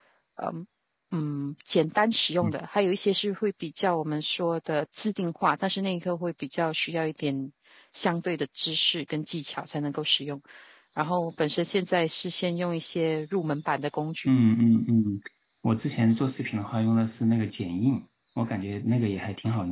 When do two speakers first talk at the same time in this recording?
none

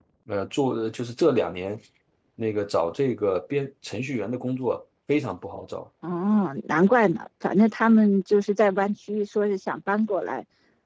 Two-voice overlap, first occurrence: none

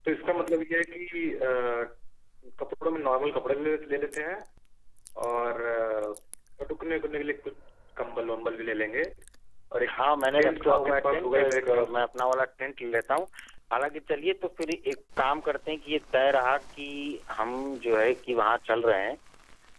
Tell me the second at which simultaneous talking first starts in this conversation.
10.4 s

